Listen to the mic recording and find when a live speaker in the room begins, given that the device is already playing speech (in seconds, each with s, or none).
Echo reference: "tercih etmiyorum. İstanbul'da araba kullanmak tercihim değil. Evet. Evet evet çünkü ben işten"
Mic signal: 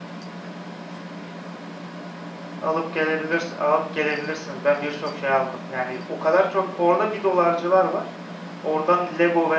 2.6 s